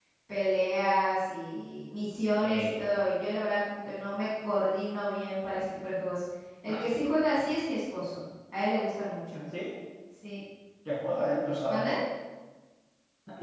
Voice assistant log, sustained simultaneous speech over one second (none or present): none